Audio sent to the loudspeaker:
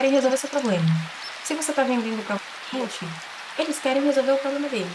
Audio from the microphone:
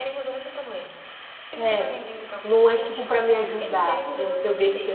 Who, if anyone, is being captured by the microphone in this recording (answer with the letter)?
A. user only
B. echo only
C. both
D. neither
C